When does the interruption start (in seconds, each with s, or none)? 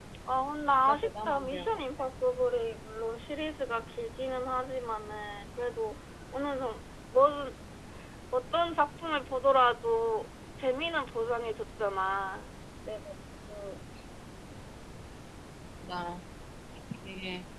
0.9 s